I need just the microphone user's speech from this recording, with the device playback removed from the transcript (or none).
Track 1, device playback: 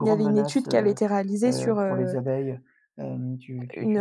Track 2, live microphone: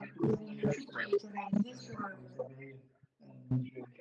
none